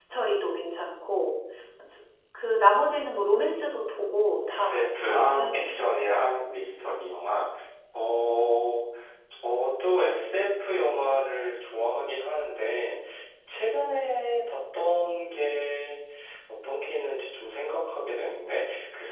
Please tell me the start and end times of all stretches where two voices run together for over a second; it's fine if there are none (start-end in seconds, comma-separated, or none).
4.5-5.8